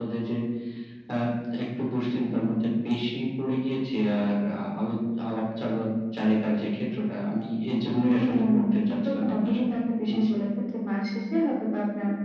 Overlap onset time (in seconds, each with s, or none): 8.1 s